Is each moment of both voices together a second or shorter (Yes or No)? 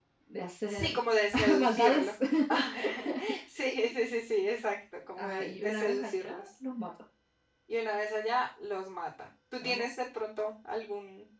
No